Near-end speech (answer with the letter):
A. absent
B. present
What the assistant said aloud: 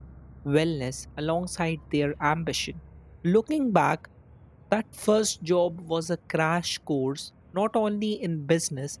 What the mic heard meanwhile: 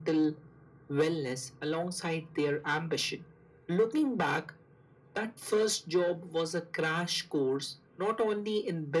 A